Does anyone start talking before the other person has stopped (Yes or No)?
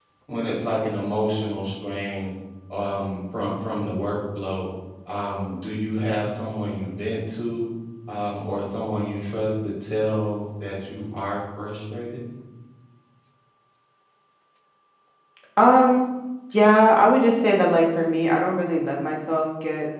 No